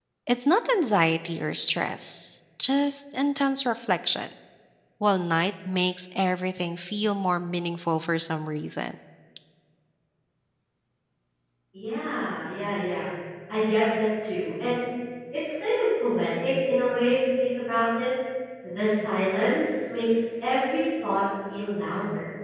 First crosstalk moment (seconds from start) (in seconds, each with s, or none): none